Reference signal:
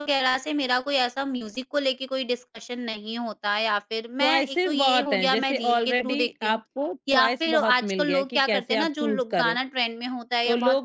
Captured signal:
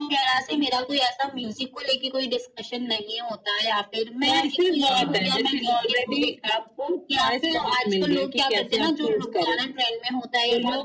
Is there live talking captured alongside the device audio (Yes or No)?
Yes